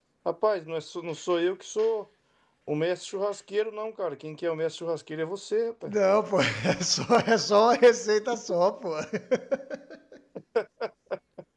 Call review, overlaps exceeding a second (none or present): none